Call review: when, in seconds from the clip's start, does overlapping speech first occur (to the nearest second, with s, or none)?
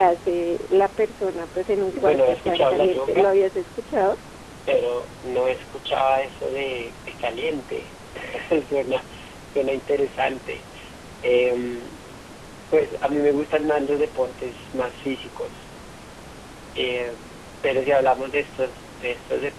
2 s